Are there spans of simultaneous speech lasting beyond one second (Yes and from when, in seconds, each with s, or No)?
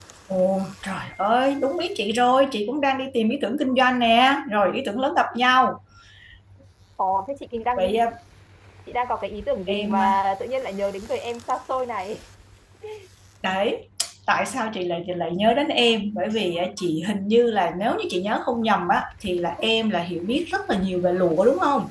No